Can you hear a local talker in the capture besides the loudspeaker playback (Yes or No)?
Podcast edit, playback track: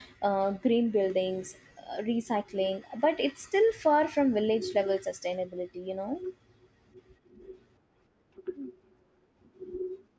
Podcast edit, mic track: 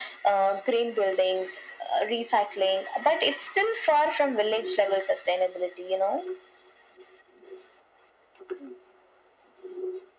No